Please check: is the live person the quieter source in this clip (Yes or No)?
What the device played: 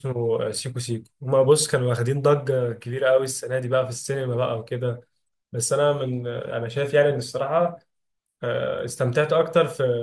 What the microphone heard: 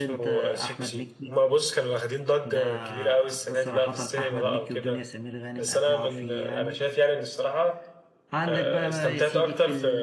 Yes